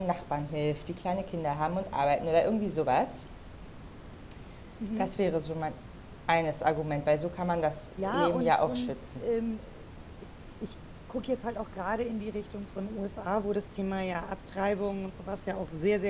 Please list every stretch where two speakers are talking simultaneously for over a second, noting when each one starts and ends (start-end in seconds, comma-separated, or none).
8.0-9.2